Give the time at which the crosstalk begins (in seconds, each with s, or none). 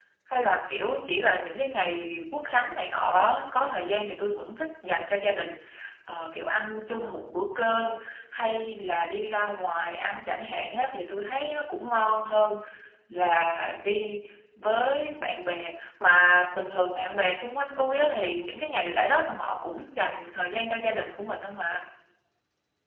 none